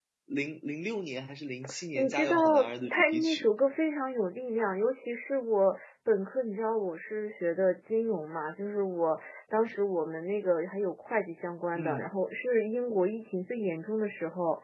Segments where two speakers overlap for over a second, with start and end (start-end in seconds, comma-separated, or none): 2.0-3.5